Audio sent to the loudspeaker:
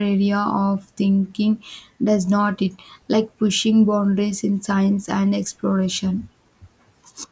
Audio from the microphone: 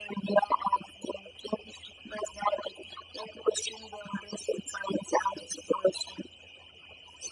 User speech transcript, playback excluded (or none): none